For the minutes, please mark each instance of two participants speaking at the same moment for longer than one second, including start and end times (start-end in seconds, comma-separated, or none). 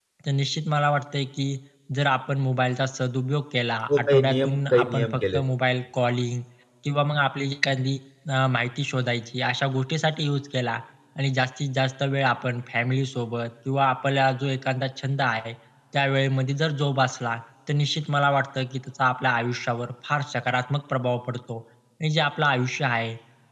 4.0-5.4